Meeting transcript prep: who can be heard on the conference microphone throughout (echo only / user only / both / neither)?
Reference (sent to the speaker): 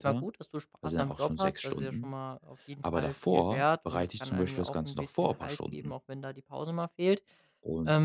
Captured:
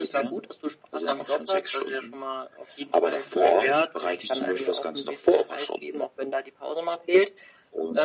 echo only